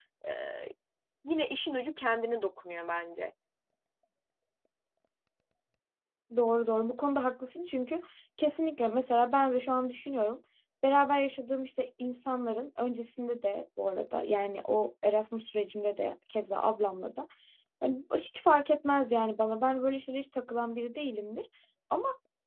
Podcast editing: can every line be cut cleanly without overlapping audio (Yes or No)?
Yes